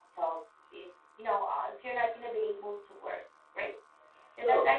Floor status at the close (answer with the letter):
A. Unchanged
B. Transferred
A